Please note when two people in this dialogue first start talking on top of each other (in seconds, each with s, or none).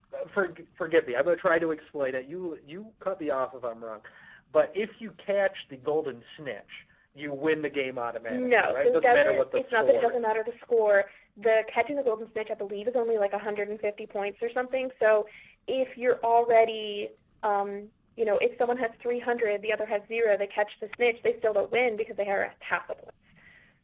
8.3 s